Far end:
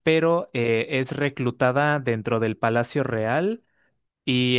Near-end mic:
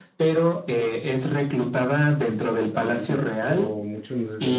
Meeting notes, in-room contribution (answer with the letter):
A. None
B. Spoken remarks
B